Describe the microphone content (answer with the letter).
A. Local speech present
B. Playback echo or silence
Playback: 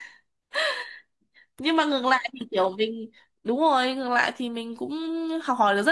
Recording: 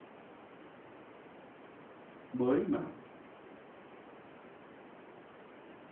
A